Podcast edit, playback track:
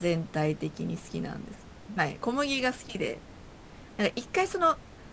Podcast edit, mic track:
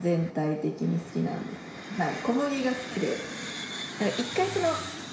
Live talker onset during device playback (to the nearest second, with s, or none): none